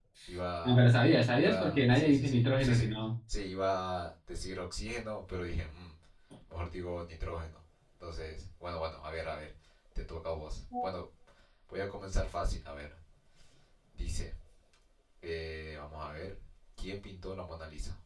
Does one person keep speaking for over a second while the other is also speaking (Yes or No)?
Yes